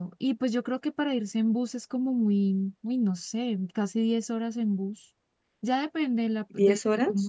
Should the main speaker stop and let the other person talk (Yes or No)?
No